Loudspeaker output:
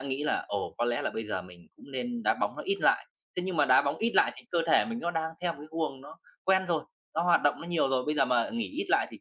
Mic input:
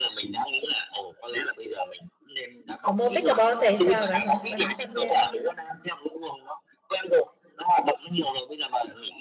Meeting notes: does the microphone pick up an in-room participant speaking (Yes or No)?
Yes